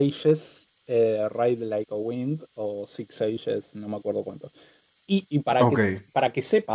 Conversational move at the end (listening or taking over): listening